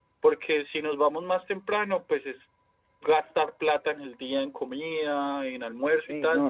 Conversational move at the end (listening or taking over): taking over